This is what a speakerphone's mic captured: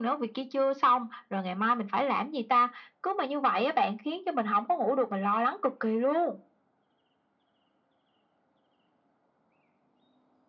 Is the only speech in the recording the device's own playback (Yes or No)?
Yes